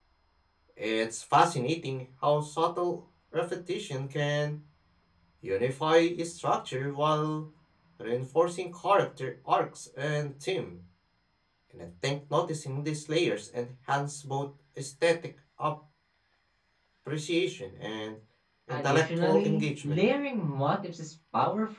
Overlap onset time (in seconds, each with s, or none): 18.7 s